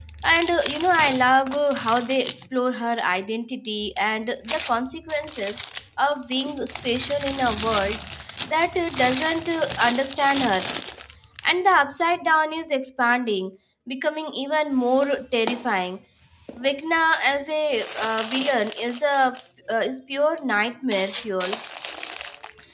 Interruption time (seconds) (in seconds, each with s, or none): none